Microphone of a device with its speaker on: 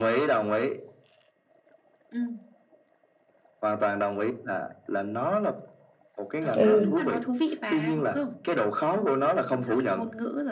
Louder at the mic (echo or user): user